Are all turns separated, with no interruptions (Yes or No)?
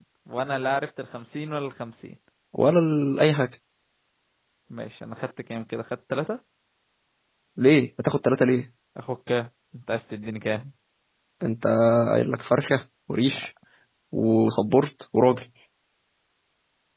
Yes